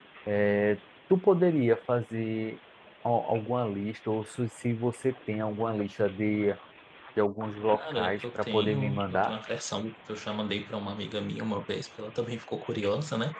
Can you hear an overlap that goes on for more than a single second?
Yes, from 7.7 s

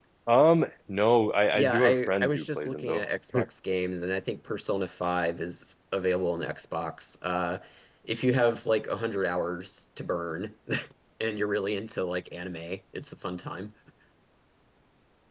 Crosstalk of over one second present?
Yes, from 1.5 s

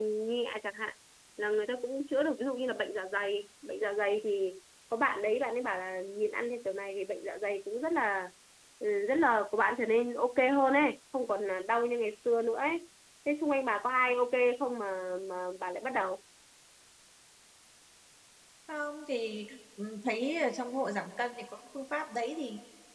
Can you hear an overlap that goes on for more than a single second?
No

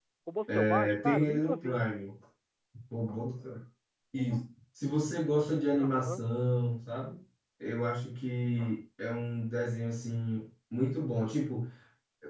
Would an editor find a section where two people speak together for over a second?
Yes, from 0.5 s

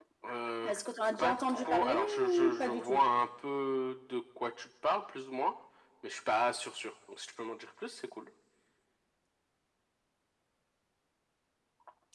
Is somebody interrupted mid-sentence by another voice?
Yes, from 1.2 s

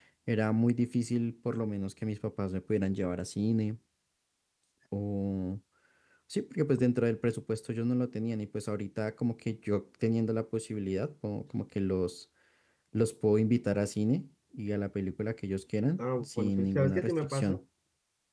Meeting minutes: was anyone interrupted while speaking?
Yes, from 16.0 s

